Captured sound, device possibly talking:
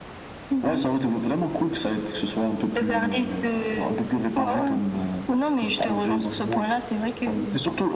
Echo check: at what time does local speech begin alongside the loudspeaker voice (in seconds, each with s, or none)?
none